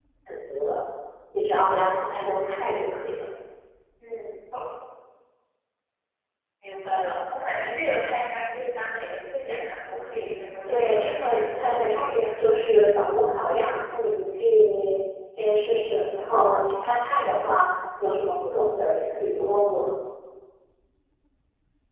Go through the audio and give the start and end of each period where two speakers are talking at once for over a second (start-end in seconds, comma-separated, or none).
10.7-12.4